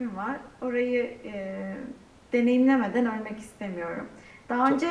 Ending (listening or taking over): listening